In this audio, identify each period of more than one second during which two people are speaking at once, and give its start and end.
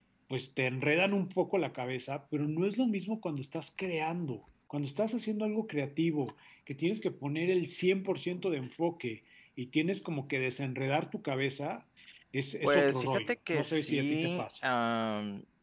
12.6-14.4

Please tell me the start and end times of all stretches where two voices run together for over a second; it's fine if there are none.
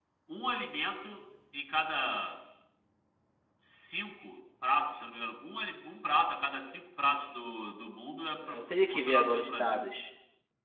8.6-9.9

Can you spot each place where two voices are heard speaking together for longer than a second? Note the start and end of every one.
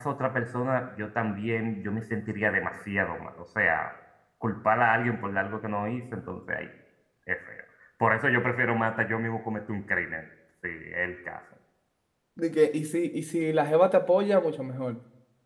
none

